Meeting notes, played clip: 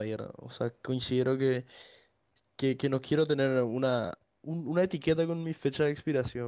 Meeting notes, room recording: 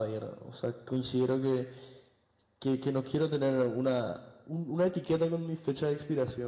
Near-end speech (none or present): none